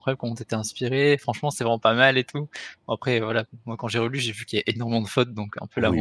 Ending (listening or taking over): taking over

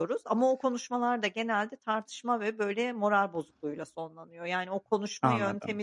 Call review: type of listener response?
listening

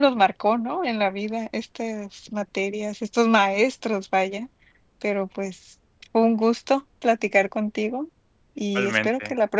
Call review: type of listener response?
listening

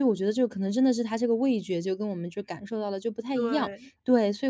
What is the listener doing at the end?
listening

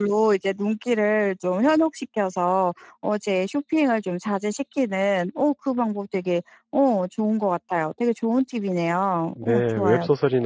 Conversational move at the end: taking over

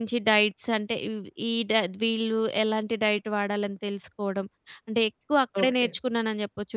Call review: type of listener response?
listening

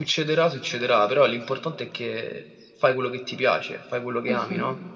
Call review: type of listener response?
taking over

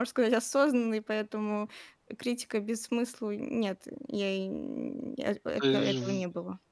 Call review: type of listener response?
taking over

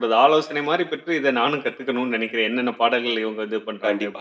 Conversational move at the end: taking over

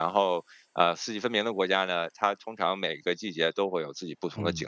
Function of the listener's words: taking over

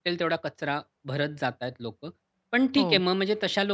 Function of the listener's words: listening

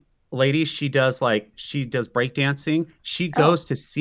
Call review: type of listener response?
listening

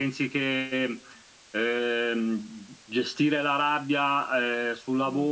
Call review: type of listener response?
listening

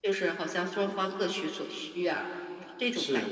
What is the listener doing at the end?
taking over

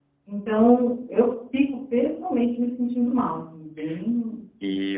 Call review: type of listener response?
taking over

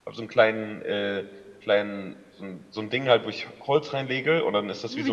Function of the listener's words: listening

